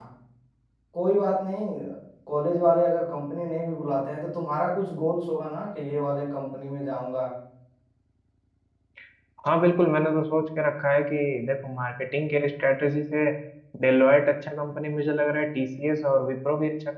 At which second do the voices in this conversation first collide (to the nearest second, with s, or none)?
none